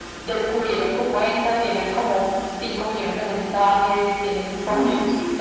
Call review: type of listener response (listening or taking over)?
listening